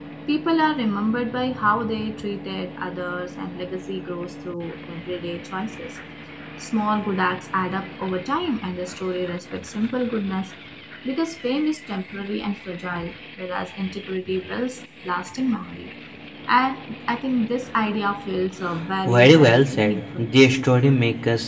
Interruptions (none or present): present